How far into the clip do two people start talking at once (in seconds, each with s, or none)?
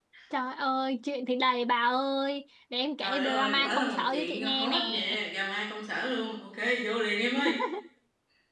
3.0 s